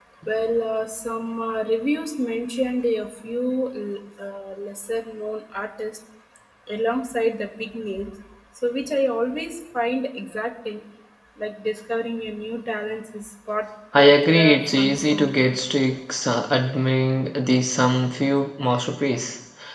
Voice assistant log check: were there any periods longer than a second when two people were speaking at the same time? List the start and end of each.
14.0-15.5

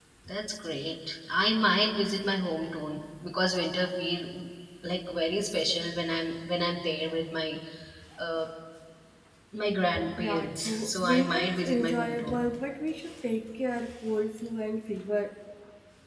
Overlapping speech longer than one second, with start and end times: 10.2-12.4

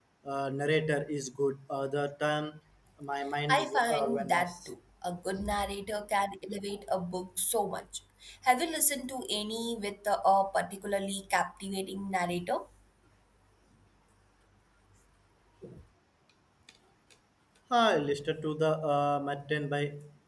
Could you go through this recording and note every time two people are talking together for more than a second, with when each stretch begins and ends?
3.5-4.7

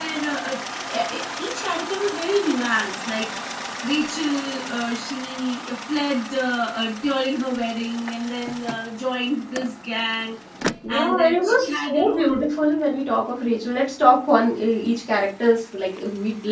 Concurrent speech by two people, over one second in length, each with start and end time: 10.9-12.4

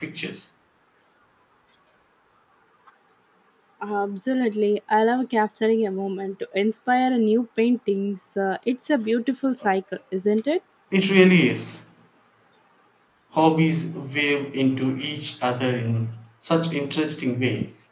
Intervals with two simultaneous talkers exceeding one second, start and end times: none

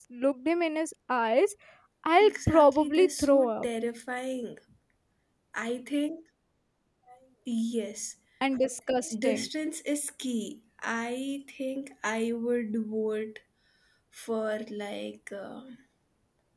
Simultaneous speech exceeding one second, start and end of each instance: 2.2-3.7

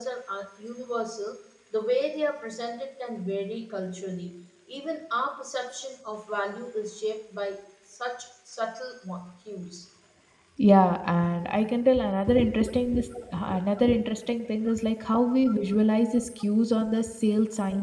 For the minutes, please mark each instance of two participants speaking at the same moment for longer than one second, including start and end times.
none

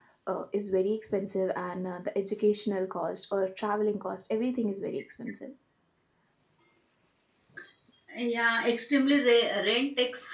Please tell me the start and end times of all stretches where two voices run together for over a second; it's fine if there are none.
none

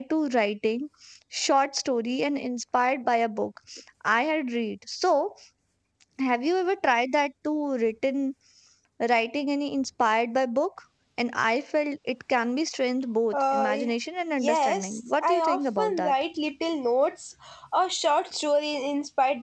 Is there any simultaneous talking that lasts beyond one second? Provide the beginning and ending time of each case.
14.4-16.1

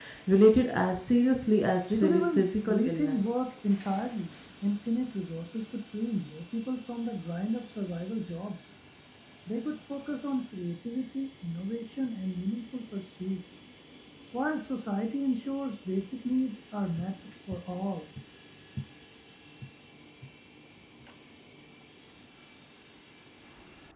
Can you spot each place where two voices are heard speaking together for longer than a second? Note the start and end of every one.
1.9-3.4

